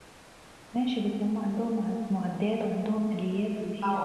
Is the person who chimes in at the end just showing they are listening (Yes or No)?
No